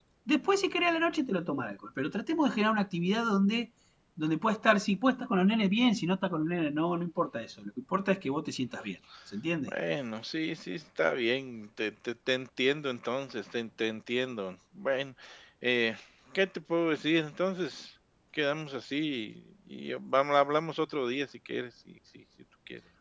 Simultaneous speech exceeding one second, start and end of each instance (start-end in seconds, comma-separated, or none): none